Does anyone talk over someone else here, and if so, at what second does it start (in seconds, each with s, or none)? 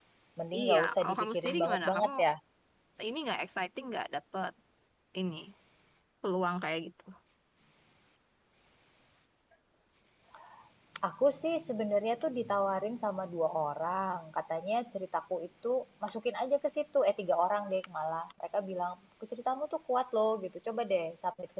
0.6 s